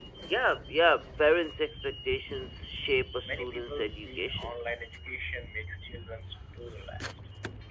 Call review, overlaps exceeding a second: present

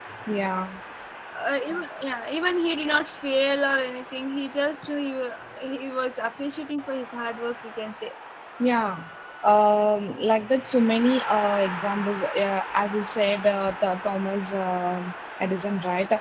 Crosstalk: none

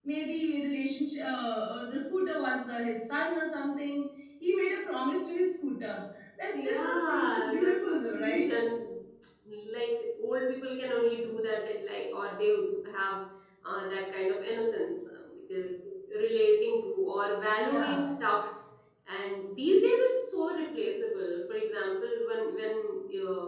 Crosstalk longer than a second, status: present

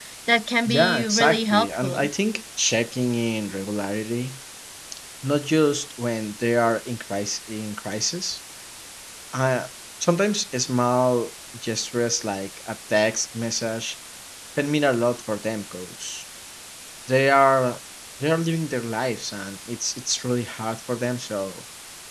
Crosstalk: present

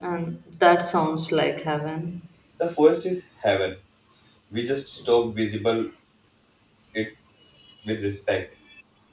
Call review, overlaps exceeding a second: none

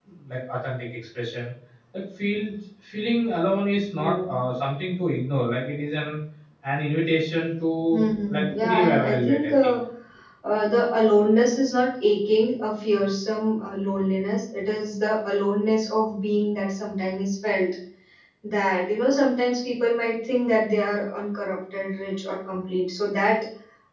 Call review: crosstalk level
present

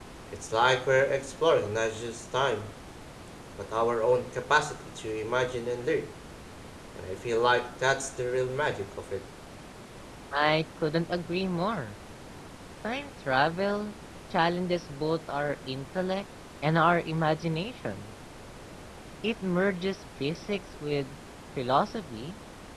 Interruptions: none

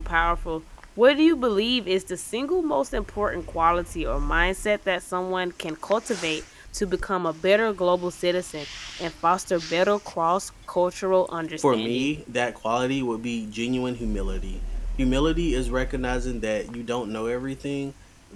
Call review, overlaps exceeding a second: none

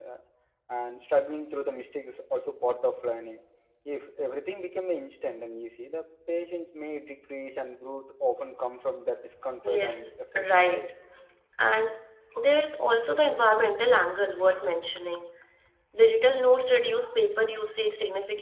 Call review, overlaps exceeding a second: present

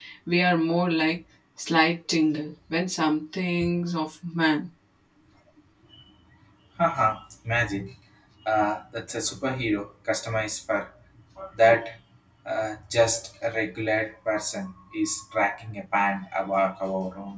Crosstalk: none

